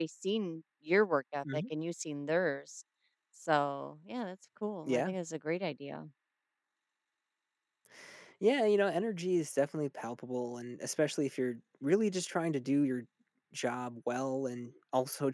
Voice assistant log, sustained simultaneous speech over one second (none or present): none